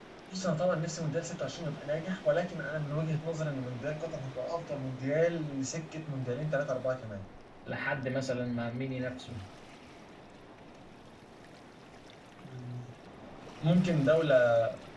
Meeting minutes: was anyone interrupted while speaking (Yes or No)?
No